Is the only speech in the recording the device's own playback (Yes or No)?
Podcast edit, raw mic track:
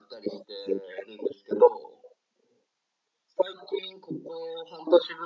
Yes